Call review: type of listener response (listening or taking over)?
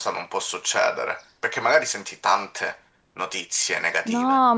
taking over